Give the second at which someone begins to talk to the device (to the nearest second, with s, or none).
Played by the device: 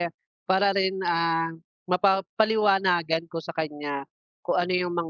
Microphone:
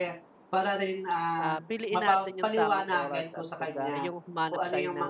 1 s